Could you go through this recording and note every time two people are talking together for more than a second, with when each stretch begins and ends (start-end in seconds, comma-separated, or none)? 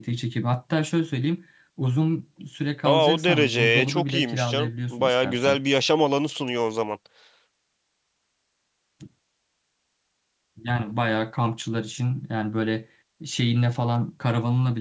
2.9-5.6